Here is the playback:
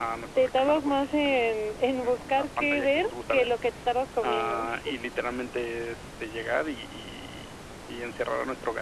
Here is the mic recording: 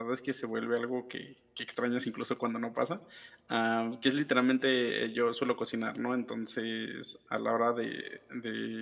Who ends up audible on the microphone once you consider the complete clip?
user only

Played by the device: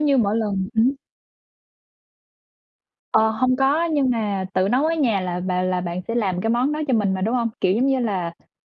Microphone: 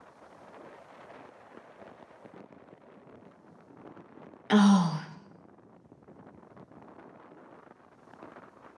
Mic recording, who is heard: user only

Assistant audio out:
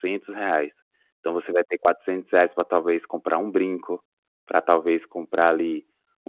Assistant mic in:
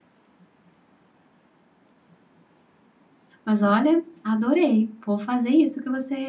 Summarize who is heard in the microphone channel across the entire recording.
user only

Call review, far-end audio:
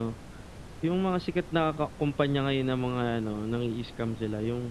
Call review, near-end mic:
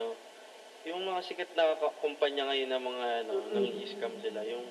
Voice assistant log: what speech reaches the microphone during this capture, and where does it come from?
both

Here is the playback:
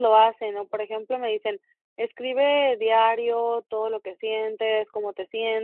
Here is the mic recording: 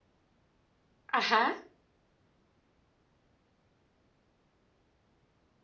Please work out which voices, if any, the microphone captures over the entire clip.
user only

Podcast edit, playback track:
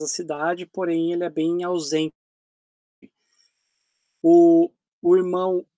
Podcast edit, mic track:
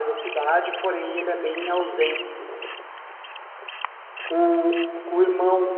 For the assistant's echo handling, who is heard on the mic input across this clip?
echo only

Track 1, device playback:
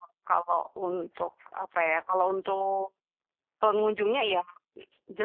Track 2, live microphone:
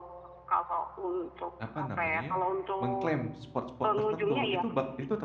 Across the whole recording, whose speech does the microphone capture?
both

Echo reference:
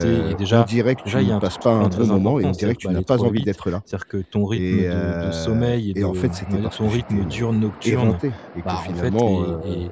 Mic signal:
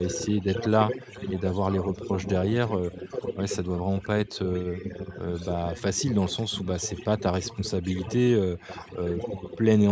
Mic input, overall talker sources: both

